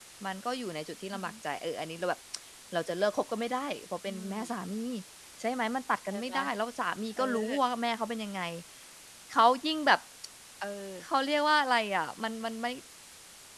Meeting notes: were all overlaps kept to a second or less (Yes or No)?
Yes